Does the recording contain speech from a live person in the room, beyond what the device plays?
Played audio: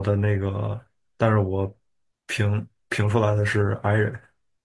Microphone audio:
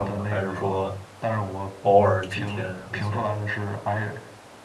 Yes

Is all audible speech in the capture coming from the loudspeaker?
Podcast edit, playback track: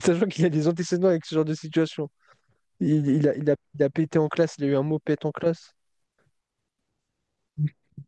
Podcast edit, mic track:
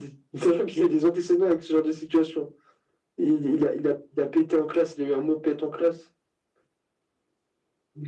Yes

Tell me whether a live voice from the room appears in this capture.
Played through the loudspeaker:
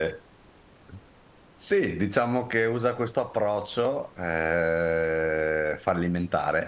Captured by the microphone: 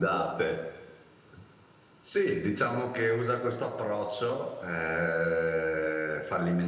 No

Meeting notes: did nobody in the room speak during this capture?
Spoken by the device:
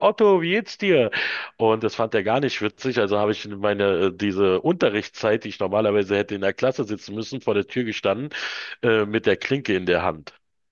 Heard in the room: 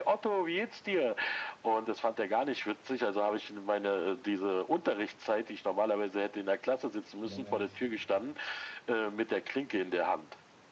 No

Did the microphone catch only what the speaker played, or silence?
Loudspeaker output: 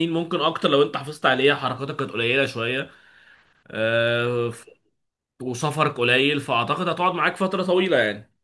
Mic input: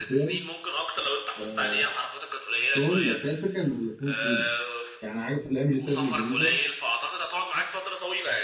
No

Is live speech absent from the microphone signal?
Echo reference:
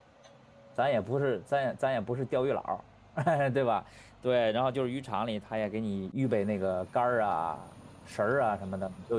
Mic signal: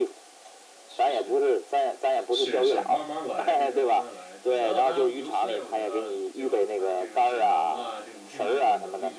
No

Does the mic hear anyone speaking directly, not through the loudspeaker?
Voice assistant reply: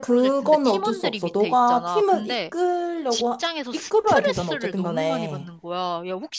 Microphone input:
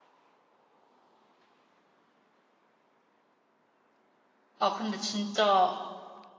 Yes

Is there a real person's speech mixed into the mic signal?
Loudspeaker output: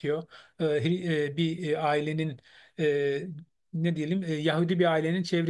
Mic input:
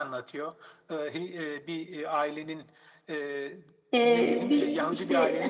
Yes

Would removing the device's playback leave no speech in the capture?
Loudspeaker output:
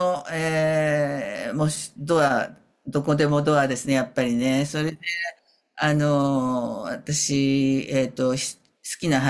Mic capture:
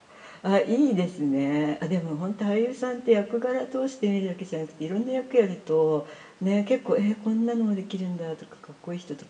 No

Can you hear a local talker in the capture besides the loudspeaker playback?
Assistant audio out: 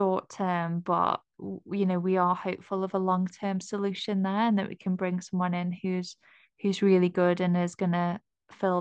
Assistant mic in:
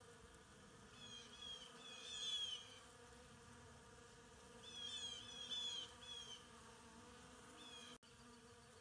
No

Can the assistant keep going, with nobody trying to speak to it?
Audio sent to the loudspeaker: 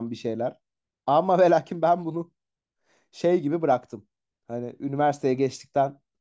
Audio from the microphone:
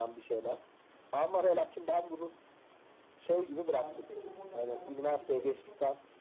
No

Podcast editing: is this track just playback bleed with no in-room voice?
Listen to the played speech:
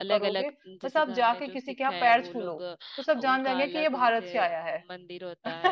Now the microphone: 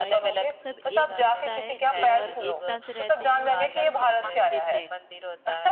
No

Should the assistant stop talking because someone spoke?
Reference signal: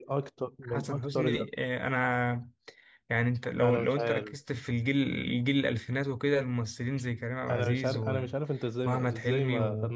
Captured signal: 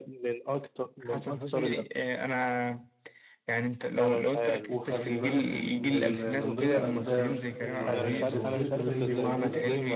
Yes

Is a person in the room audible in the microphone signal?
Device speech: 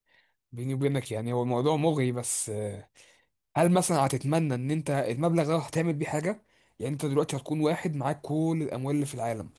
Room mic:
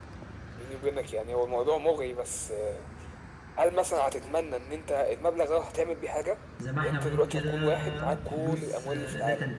Yes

